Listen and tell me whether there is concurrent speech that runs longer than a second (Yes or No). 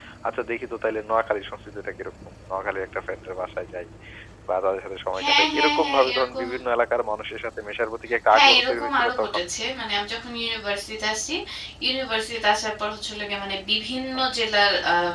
Yes